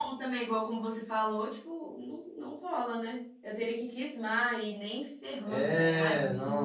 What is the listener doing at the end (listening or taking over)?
taking over